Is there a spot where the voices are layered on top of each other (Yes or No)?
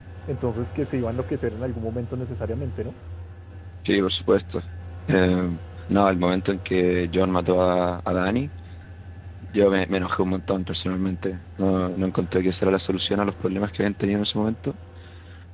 No